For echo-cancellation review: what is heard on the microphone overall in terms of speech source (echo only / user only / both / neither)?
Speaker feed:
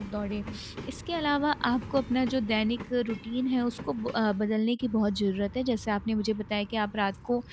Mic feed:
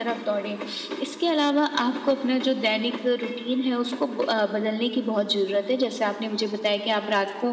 echo only